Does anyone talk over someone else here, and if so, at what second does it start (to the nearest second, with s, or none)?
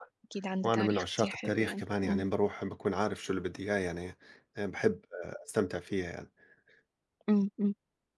1 s